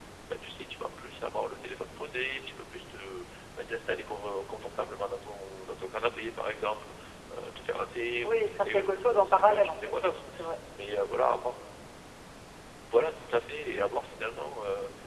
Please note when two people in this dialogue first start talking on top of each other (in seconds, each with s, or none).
8.2 s